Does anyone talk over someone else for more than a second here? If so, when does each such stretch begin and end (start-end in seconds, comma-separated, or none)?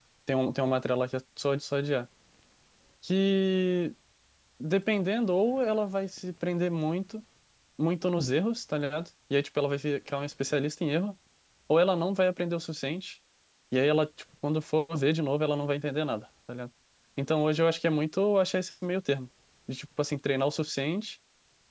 none